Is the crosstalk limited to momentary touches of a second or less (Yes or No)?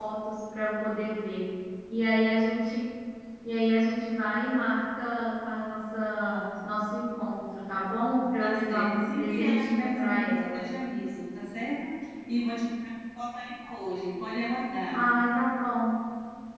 No